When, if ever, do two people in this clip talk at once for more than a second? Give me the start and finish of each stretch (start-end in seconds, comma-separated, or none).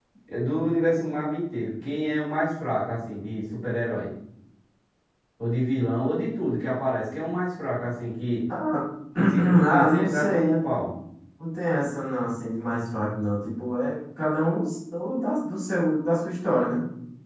9.2-10.6